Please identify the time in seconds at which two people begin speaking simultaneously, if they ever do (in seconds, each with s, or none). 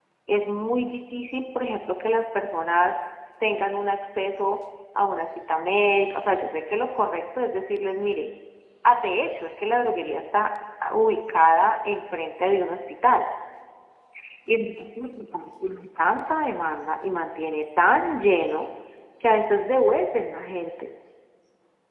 none